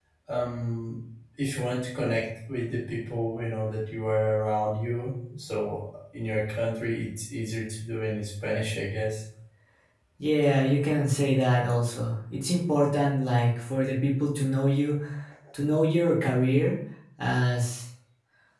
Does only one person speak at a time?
Yes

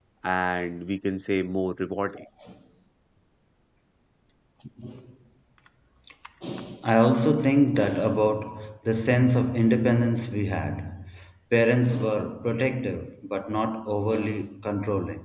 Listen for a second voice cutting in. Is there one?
No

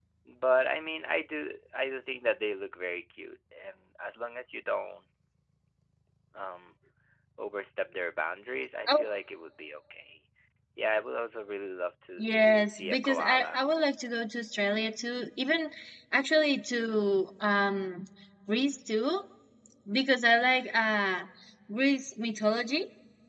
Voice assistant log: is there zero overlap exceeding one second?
No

